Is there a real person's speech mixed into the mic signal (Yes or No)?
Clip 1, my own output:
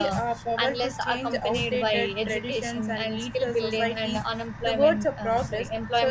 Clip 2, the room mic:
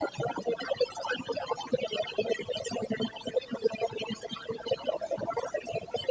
No